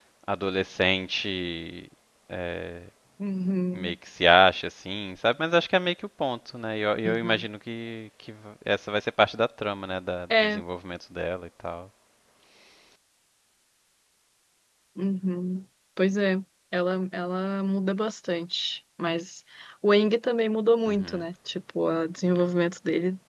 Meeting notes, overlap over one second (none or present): none